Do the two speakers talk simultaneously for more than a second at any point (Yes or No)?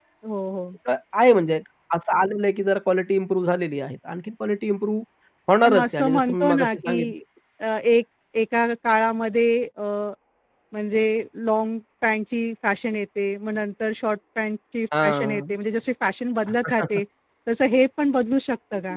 Yes